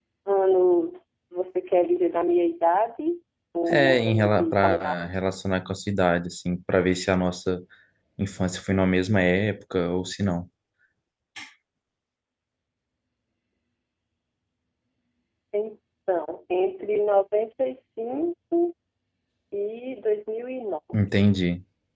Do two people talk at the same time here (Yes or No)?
Yes